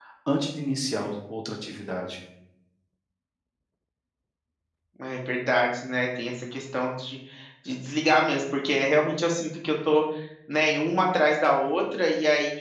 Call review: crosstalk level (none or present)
none